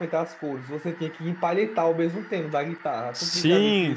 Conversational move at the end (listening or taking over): taking over